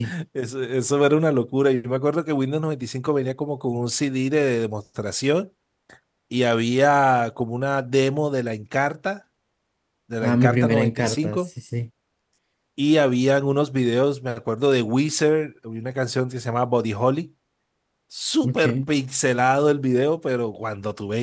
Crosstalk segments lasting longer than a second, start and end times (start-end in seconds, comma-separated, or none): 10.2-11.5